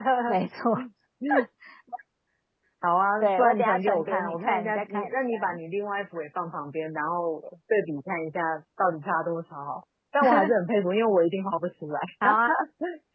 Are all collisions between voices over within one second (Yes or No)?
No